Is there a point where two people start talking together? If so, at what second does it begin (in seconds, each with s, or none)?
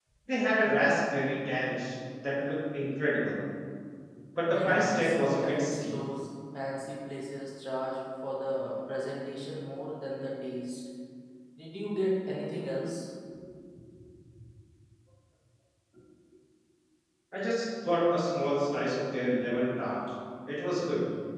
4.5 s